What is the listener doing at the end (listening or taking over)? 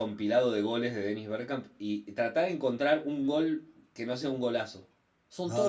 taking over